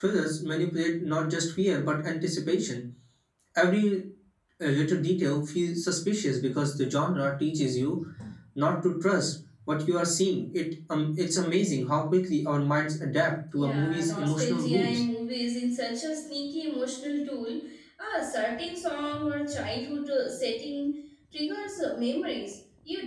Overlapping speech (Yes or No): Yes